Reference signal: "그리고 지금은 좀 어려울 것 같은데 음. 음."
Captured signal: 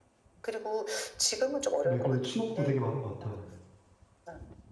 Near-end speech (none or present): present